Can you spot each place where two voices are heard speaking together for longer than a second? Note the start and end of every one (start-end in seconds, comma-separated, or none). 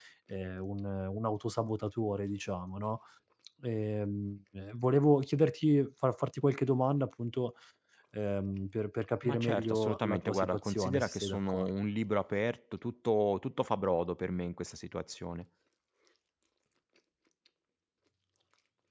9.2-11.7